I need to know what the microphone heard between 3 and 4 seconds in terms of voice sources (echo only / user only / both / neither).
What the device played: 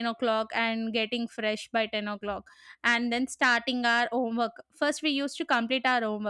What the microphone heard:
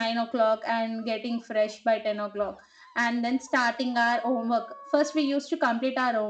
echo only